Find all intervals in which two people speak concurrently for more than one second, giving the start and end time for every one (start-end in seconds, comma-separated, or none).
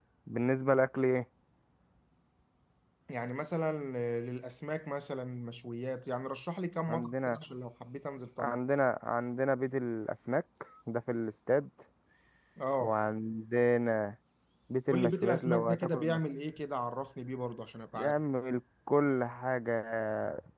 14.9-16.2